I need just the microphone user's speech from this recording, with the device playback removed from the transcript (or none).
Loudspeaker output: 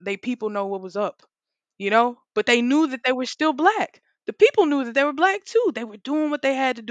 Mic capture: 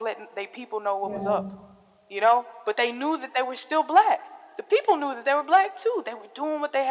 Yeah.